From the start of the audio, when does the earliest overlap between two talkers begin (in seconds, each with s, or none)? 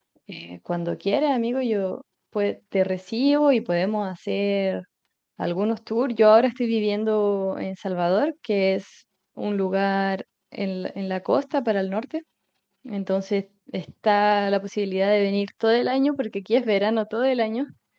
none